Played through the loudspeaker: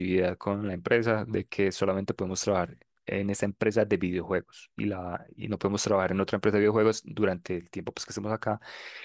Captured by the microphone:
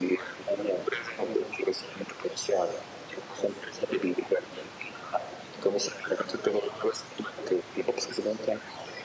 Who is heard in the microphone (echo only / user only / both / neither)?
echo only